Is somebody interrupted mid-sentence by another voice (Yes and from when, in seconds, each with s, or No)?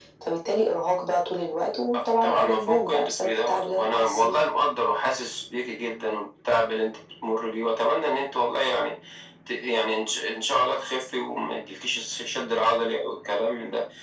Yes, from 2.2 s